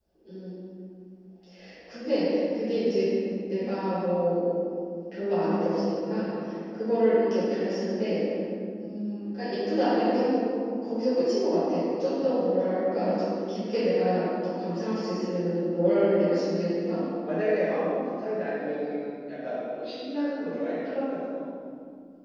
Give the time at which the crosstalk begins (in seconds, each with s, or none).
none